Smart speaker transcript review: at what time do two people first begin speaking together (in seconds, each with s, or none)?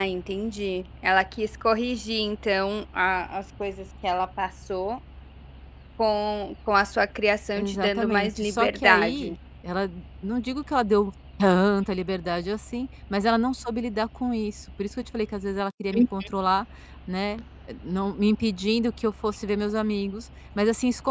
7.6 s